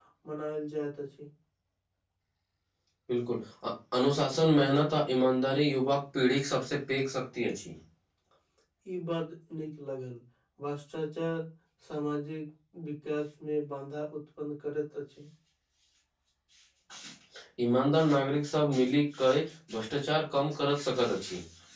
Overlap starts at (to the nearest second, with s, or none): none